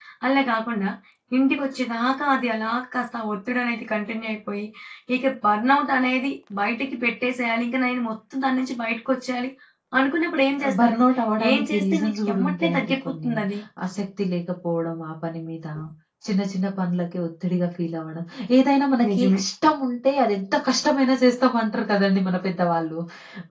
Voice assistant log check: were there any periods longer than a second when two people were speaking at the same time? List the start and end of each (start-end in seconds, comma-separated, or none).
11.5-13.3